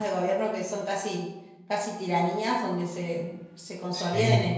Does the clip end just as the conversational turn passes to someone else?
No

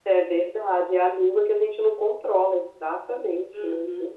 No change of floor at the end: No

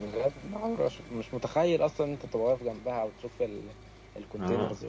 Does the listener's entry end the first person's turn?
Yes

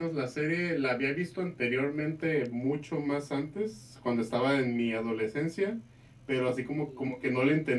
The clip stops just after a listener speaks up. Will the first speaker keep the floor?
Yes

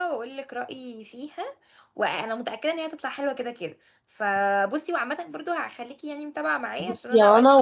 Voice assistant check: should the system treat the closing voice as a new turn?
Yes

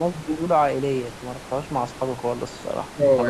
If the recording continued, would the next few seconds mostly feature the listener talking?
Yes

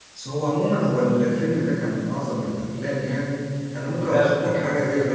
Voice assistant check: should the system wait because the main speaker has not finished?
Yes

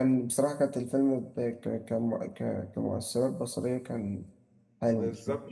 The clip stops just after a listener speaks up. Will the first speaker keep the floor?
No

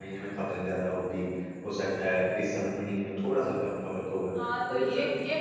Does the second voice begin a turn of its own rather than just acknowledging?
Yes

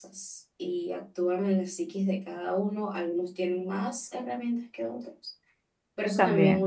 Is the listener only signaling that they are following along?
Yes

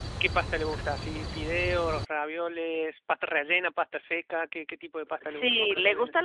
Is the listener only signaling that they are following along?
No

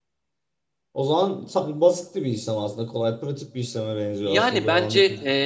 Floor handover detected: Yes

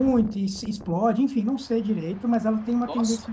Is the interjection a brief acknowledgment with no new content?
Yes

